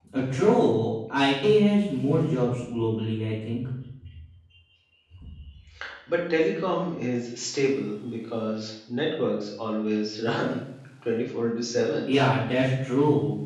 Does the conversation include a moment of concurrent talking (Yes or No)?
No